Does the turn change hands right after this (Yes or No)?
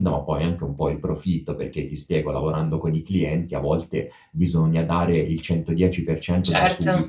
No